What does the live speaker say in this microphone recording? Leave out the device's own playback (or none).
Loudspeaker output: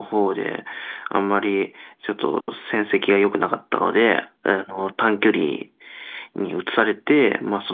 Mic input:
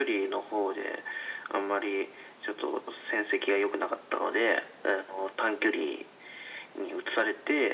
none